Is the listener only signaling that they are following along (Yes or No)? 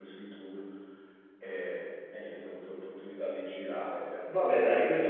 No